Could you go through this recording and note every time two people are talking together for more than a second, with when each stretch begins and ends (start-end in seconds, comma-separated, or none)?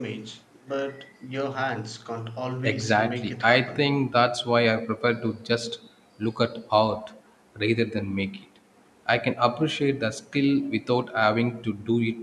2.6-3.8